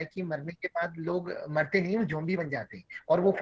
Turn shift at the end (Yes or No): No